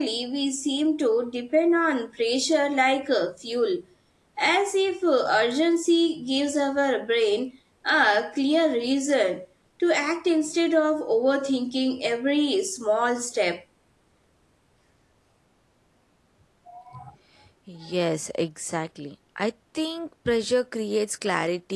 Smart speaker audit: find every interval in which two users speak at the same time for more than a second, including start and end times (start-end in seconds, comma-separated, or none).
none